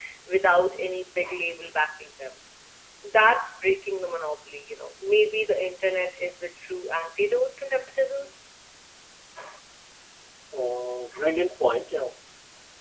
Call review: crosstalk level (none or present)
none